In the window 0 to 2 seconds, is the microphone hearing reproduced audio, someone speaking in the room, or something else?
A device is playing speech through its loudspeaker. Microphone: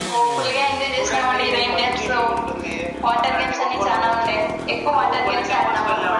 echo only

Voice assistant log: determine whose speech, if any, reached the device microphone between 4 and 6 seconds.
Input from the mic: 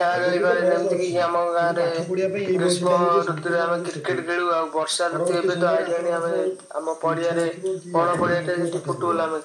both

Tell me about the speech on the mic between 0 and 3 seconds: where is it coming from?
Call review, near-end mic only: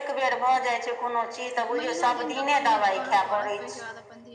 both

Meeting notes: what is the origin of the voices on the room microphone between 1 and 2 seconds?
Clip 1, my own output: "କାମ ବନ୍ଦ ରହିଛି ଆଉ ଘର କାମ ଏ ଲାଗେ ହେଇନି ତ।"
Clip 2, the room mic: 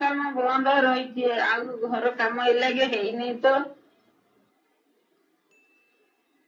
echo only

